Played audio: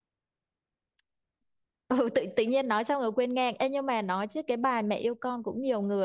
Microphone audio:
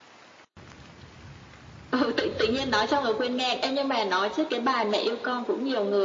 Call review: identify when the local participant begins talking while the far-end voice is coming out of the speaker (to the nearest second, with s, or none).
none